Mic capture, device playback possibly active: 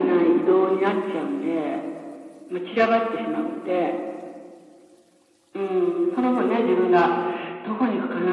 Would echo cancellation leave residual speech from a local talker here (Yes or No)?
No